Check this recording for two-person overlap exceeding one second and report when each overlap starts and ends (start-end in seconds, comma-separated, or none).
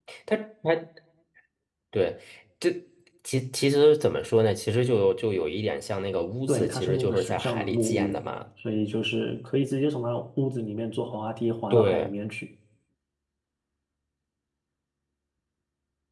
6.5-8.2